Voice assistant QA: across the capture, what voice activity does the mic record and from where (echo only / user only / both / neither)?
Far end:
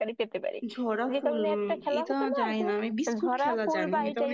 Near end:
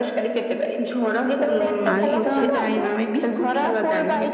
both